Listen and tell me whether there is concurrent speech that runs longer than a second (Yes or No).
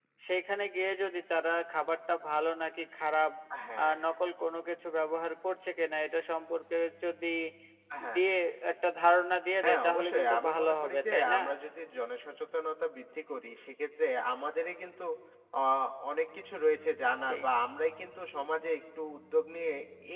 Yes